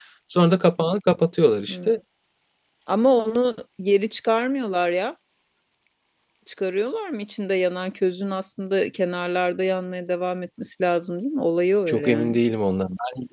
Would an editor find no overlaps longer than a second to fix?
Yes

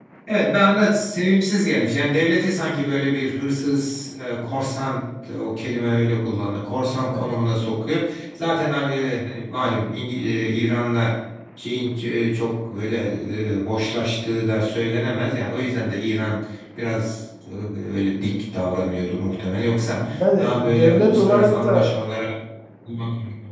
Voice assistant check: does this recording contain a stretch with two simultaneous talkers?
Yes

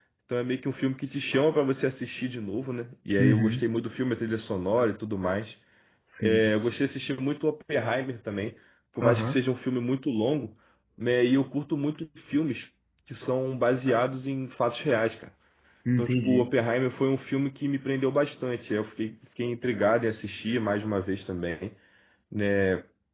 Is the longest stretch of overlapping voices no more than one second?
Yes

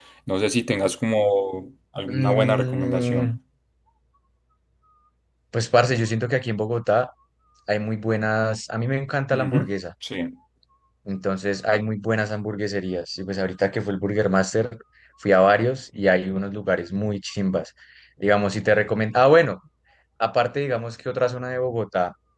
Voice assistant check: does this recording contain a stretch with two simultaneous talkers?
Yes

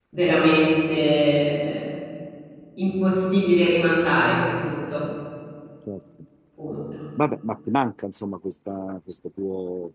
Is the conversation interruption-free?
Yes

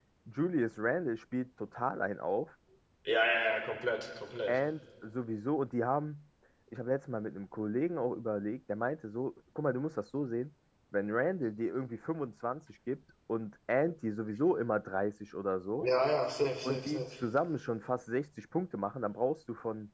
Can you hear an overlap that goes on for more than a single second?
No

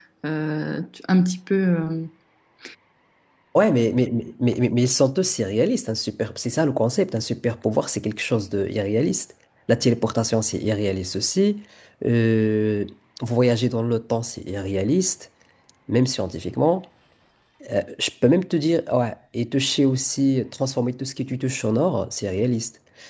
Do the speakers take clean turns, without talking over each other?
Yes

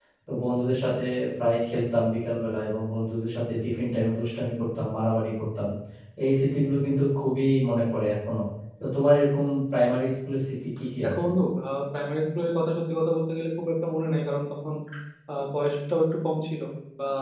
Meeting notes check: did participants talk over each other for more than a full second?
No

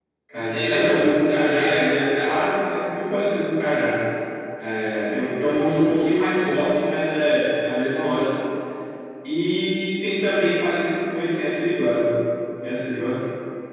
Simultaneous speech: Yes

